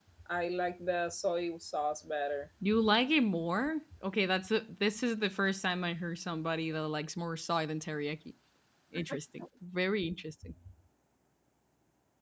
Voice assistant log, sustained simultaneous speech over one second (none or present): none